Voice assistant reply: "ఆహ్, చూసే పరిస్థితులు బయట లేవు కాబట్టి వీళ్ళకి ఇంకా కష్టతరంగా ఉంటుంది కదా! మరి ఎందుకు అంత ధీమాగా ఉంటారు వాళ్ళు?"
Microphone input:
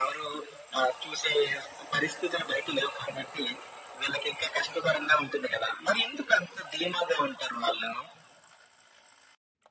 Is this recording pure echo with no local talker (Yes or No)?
Yes